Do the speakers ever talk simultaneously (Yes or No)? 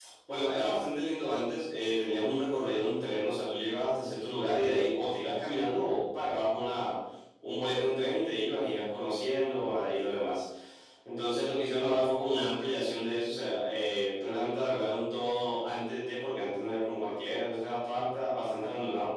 No